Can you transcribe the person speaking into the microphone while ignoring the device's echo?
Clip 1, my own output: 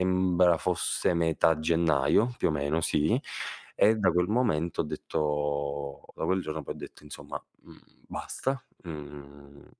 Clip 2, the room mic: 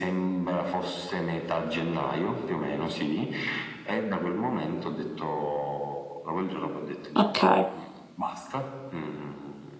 Okay.

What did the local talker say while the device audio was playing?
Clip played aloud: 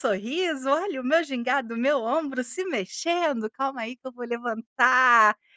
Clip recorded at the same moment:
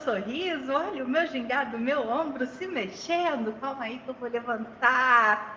none

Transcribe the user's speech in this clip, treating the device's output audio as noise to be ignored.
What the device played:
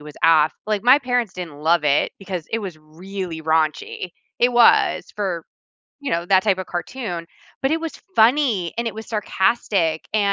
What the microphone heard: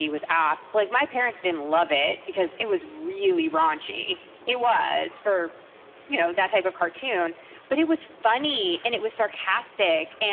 none

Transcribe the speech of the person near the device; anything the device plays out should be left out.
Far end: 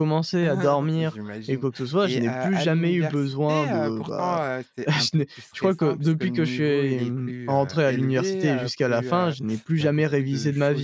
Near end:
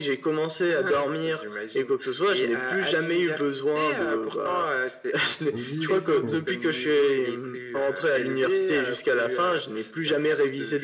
Oui, oui, oui, oui.

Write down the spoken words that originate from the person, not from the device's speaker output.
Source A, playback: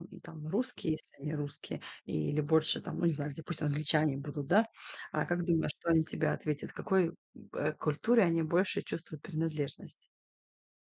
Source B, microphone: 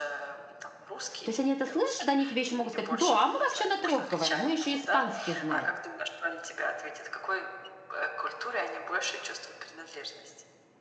То есть они это слышат, они тебе ещё могут сказать: "Да, а мы вообще на 3 говорим. Мы ещё испанский знаем".

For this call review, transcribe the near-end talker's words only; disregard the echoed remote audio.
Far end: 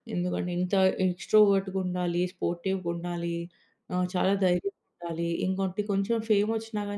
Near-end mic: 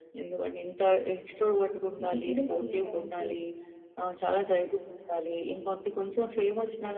ఇది కూడా సేమ్ అంతే.

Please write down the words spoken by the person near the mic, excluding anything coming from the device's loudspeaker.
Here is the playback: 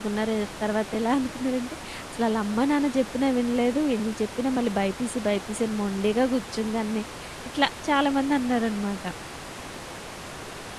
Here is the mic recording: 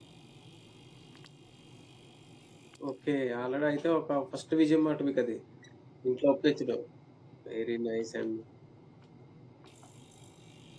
ఓకే. ఆల్రెడీ అయితే ఒక ఫస్ట్ విజయం మాట మీకు అది. ఇంట్లో ఒప్పించడం. వెరీ నైసండి.

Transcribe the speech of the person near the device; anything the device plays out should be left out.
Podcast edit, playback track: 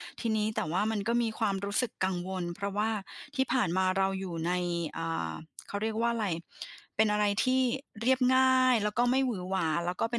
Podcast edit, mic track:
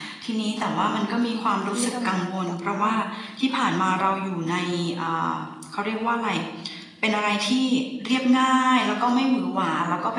ที่ทำงานแล้ว แต่ว่า

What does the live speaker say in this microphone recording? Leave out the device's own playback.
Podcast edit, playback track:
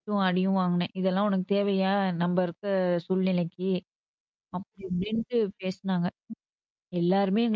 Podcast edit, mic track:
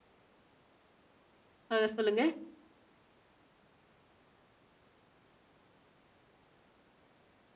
ஆ சொல்லுங்க.

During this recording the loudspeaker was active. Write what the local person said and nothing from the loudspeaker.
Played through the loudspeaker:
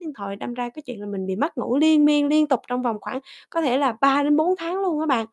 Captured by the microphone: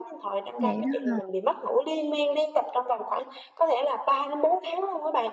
Vậy đó ha.

